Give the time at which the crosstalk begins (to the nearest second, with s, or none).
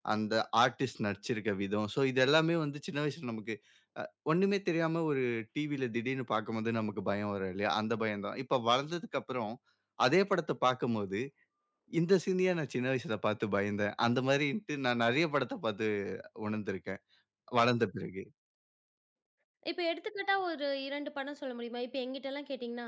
none